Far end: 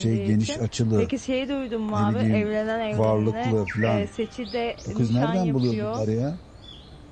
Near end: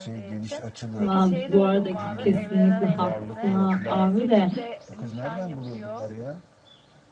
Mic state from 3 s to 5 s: both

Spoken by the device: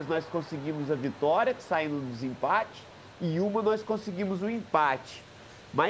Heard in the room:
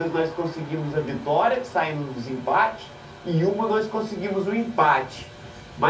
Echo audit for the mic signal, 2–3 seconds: echo only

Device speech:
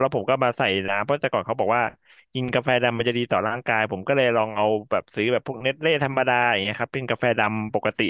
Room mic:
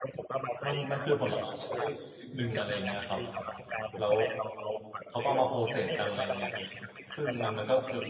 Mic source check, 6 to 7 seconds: both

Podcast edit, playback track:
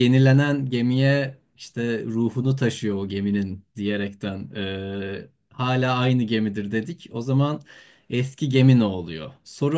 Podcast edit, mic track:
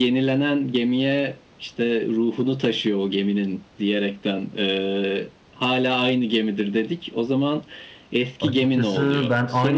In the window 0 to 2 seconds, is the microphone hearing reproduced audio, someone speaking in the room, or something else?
echo only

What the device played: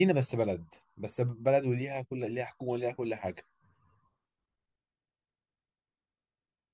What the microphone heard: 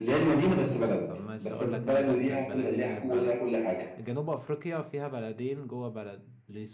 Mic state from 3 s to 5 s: both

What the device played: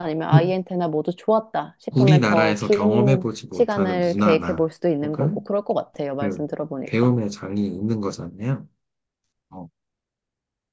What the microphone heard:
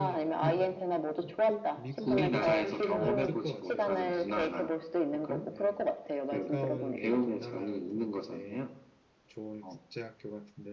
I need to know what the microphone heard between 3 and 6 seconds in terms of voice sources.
both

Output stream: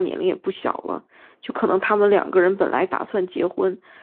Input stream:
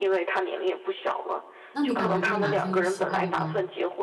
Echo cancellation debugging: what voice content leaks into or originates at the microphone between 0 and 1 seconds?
echo only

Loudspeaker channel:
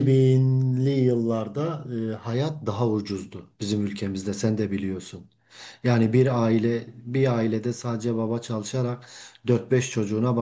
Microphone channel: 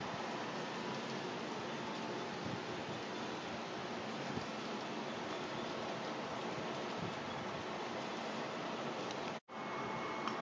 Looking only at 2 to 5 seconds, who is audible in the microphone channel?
neither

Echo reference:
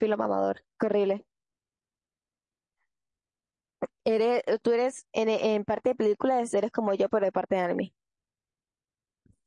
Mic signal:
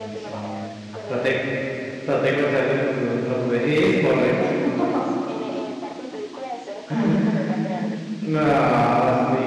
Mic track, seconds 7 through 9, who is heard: both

